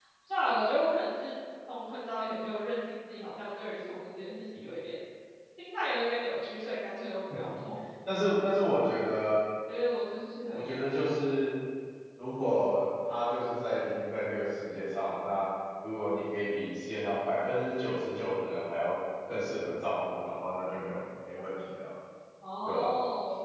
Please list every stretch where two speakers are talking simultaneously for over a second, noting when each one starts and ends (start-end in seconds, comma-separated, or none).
none